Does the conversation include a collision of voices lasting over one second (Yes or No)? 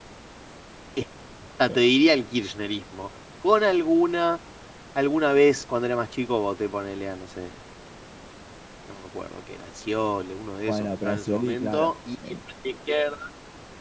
Yes